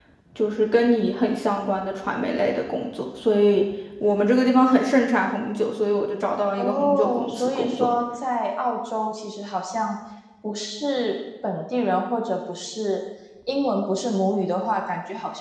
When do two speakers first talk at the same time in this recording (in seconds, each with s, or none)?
6.6 s